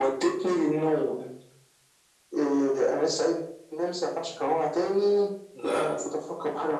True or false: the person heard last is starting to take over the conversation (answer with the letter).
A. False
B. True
A